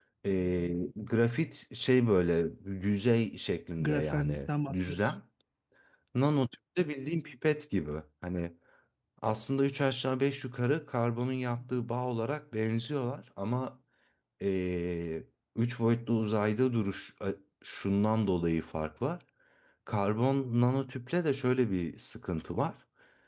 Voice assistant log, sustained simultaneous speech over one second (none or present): present